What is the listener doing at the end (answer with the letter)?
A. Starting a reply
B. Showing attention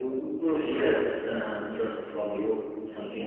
A